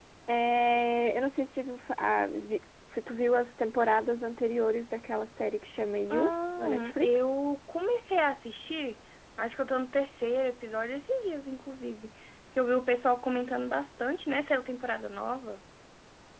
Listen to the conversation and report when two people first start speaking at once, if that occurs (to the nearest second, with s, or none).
6 s